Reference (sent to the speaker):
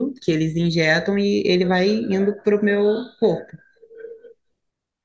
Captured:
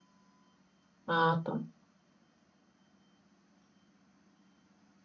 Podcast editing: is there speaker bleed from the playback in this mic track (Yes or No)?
No